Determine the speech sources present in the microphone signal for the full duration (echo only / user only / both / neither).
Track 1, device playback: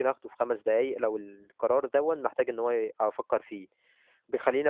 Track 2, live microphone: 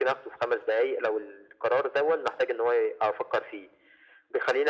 echo only